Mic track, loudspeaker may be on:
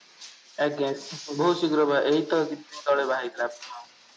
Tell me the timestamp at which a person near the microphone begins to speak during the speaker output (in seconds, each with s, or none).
none